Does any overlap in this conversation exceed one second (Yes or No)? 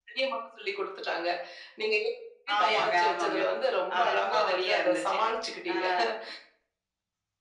Yes